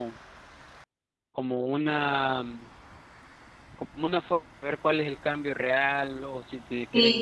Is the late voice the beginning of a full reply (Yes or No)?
Yes